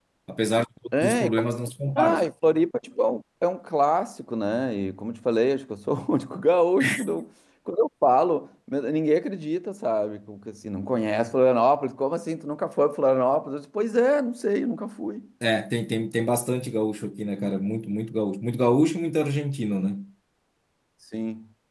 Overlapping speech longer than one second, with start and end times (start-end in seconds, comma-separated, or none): none